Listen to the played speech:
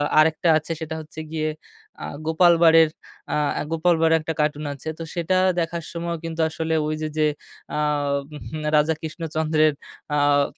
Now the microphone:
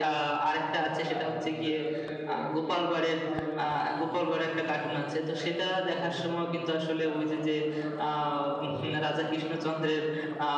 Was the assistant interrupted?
Yes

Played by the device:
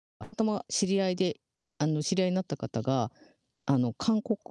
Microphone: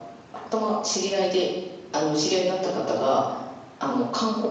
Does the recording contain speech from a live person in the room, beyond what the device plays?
No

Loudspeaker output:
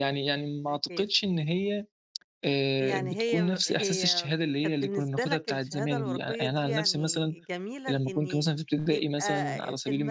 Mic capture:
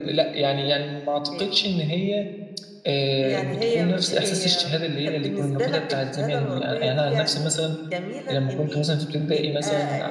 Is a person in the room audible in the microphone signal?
No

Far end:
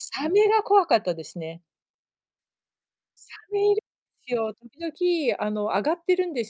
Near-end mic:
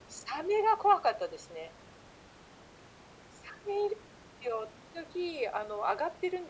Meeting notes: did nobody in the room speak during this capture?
Yes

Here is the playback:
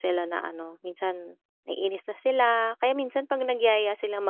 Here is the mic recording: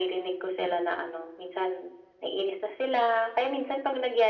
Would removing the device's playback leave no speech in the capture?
Yes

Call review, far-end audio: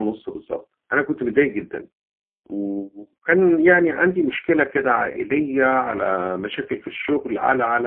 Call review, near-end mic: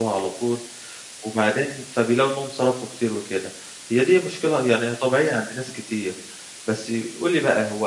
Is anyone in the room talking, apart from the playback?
Yes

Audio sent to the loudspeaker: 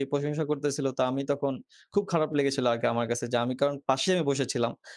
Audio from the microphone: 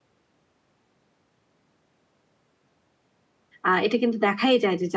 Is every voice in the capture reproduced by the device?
No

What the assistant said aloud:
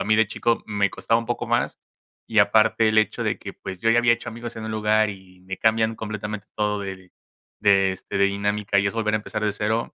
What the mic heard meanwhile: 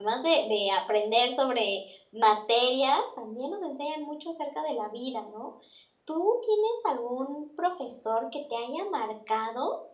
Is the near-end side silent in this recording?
No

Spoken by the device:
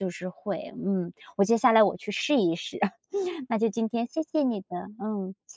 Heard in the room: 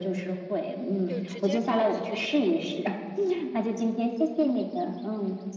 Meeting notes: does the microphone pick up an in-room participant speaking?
Yes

